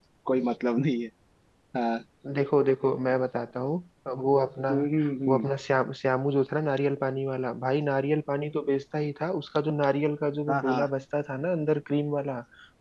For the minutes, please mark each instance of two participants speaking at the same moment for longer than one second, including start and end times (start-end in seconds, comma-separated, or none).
none